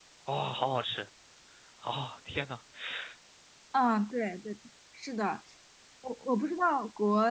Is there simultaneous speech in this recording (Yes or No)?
No